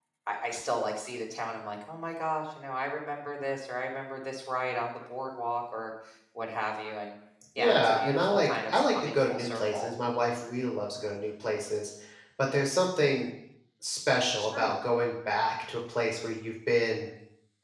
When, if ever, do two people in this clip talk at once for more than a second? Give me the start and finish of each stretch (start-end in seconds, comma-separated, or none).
7.6-9.9